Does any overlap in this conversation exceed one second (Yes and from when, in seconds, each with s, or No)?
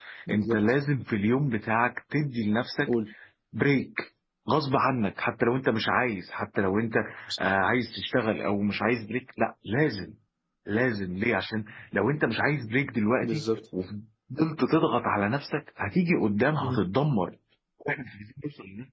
No